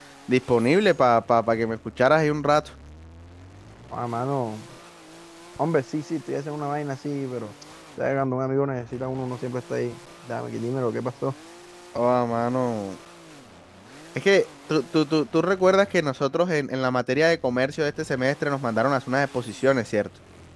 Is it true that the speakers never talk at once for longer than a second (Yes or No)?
Yes